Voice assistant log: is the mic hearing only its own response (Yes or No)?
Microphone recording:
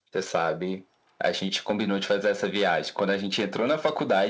Yes